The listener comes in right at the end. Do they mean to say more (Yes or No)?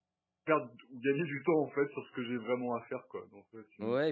Yes